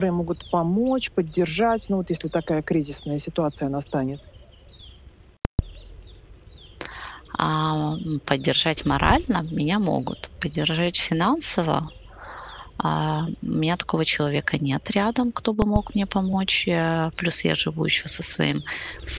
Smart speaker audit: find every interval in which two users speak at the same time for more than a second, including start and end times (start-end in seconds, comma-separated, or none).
none